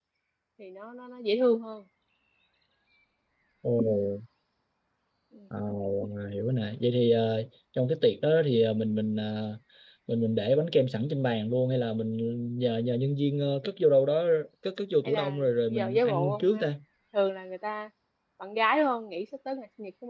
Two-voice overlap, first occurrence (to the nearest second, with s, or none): 15 s